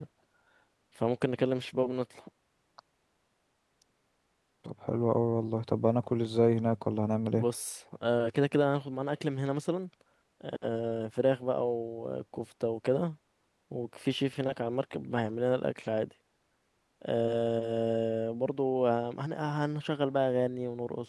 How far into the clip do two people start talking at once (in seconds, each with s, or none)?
none